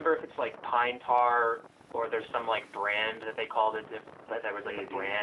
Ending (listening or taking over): listening